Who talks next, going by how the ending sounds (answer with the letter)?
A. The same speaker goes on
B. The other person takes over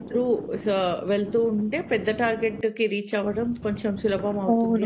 B